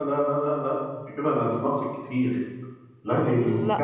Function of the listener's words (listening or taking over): listening